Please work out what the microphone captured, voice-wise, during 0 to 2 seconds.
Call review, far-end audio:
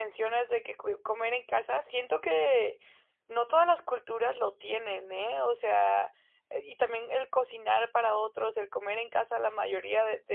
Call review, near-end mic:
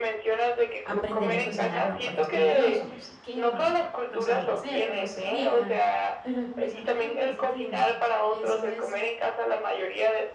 both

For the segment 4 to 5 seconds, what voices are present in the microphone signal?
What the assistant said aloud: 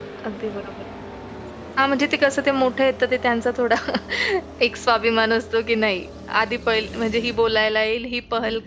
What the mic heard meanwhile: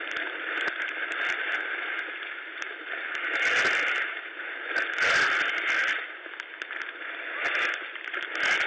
neither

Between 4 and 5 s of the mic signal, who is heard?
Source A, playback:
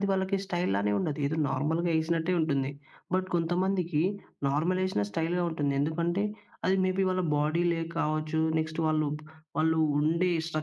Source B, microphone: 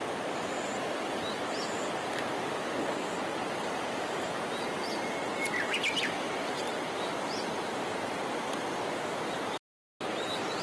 neither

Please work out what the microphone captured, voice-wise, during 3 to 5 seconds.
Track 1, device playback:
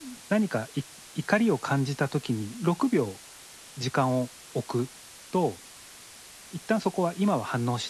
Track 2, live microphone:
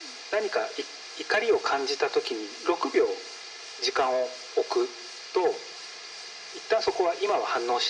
echo only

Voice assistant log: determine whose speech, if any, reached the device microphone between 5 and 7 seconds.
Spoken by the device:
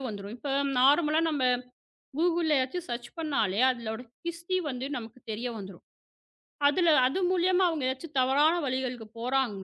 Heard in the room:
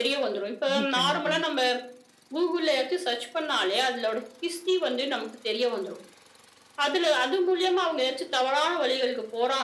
echo only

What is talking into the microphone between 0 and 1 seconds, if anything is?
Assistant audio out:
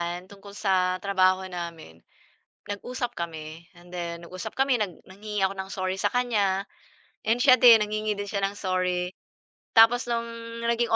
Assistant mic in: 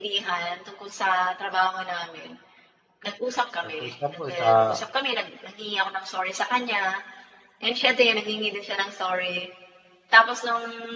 echo only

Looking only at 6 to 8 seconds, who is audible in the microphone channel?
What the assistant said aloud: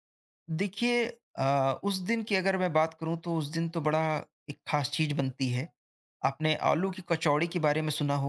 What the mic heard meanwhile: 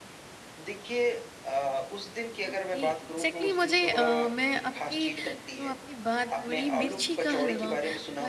both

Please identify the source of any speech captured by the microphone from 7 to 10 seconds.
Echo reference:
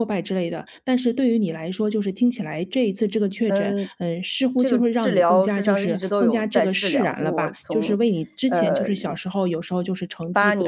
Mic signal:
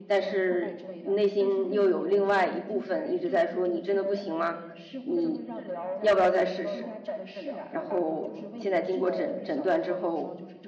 both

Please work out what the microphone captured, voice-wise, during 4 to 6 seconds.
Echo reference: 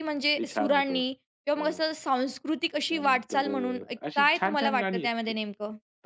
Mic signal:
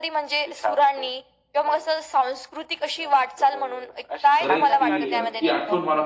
both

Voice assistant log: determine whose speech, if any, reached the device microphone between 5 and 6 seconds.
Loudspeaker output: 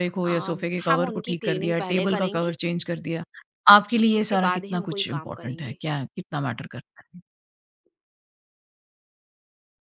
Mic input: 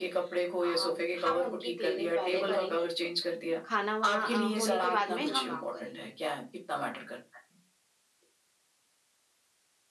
both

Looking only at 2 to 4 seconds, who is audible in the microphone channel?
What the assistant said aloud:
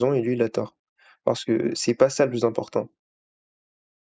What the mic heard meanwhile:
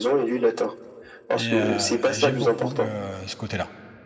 both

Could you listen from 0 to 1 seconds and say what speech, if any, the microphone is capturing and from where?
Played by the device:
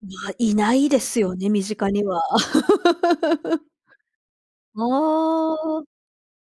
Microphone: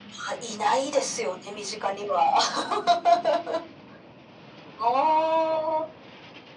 echo only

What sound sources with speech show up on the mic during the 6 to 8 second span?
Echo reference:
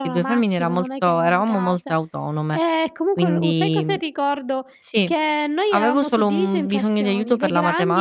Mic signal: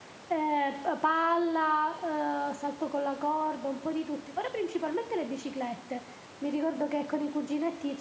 user only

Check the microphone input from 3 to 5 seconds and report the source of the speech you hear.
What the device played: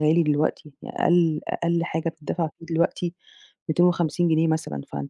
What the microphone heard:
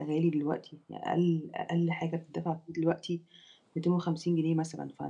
echo only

